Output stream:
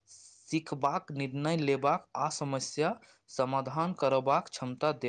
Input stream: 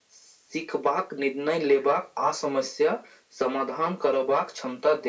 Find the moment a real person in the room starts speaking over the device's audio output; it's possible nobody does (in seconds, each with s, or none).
none